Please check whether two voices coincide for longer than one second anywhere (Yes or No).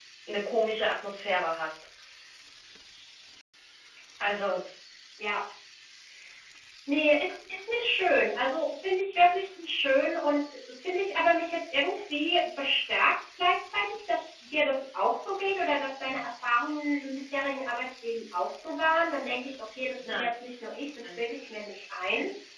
No